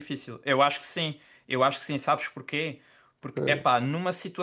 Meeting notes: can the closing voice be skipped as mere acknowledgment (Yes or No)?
Yes